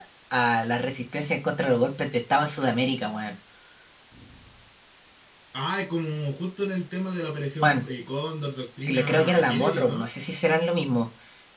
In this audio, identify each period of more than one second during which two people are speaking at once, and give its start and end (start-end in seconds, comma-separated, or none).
8.9-10.1